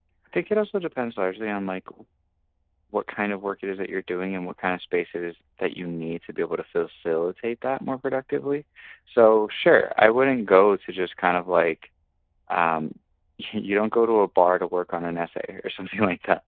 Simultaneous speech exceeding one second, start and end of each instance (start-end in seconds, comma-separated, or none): none